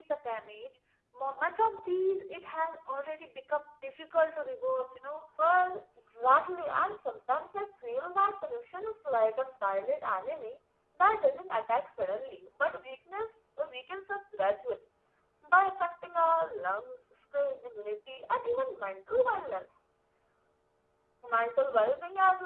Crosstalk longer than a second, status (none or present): none